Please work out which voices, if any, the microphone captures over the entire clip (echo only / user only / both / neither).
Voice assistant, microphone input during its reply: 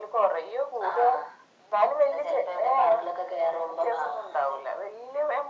echo only